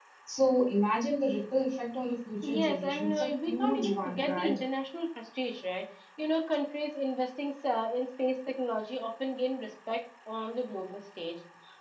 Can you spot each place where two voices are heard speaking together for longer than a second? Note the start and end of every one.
2.6-4.6

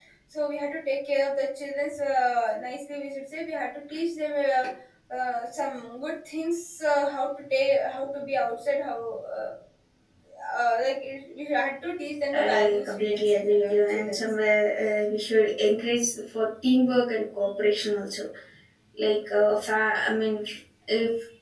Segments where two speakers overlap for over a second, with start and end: 12.3-14.2

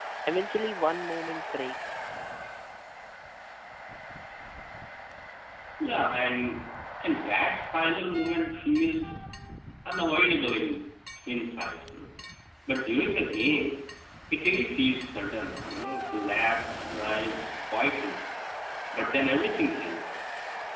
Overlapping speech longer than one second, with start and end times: none

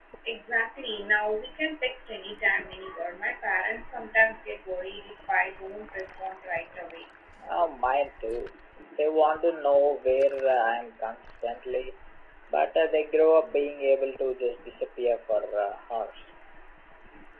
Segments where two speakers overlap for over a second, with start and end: none

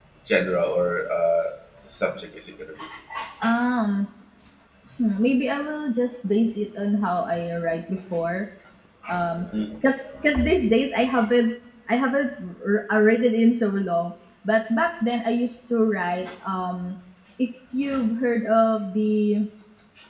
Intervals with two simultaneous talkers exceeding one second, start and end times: none

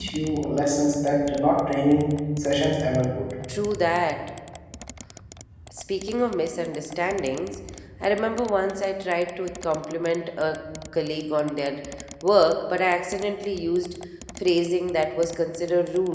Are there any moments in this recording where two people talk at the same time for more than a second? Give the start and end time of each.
none

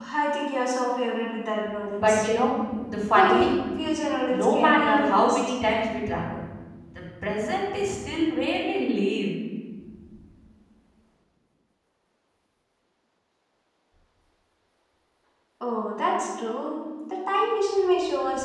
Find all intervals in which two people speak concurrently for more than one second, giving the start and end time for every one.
4.3-5.5

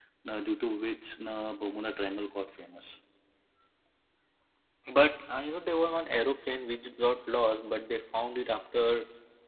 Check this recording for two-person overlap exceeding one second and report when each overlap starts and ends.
none

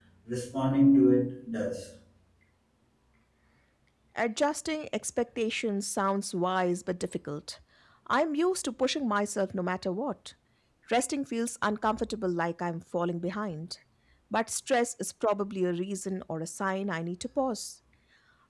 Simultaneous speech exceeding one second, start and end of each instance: none

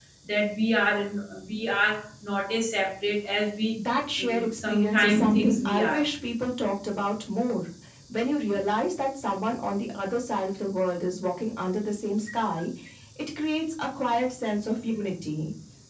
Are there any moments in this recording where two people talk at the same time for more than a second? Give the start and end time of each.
4.2-6.0

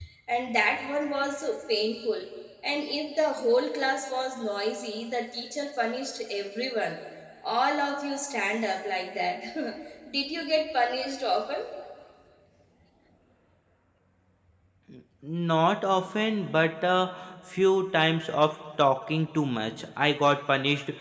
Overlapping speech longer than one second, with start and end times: none

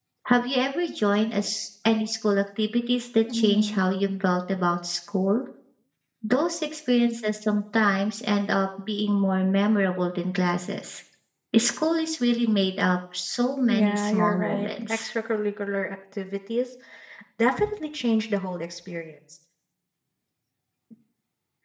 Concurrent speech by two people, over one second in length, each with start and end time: 13.7-15.1

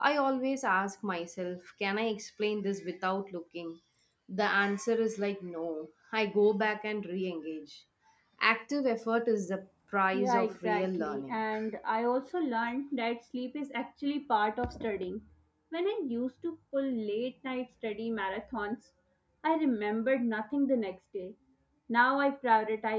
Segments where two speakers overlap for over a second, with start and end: 10.1-11.4

